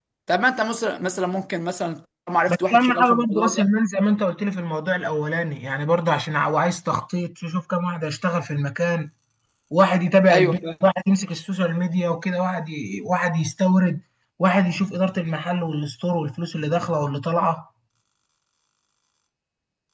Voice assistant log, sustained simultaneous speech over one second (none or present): present